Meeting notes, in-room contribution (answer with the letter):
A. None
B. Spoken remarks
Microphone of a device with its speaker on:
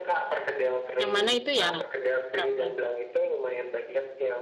B